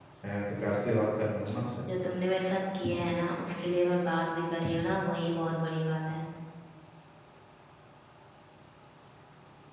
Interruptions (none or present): none